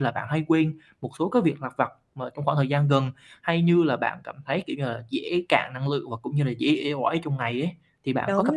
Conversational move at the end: taking over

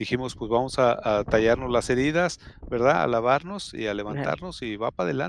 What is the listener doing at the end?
listening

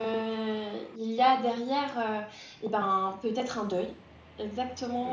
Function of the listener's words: listening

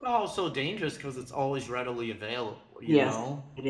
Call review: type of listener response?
taking over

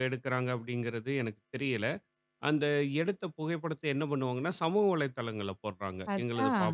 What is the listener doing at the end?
listening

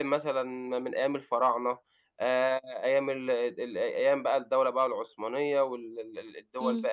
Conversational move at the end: listening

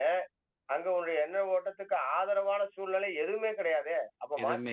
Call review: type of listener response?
listening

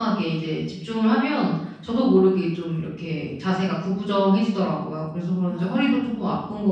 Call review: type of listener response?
listening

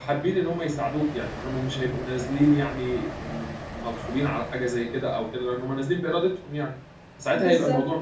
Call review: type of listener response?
listening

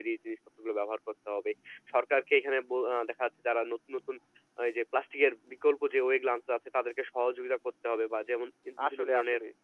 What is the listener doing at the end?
listening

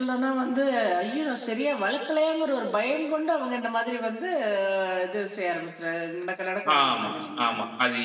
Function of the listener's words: taking over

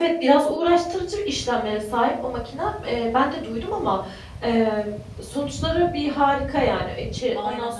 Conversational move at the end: listening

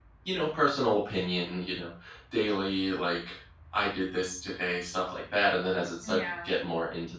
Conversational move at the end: listening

